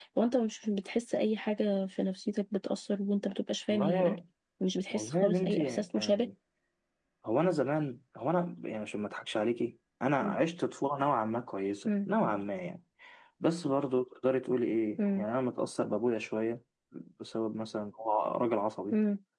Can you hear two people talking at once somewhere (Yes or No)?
Yes